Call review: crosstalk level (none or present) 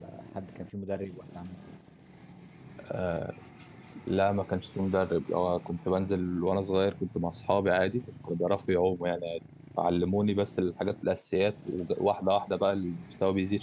none